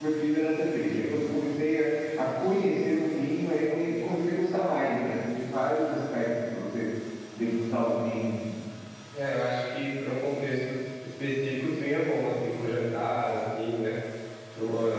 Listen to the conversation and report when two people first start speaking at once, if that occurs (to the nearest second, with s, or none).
none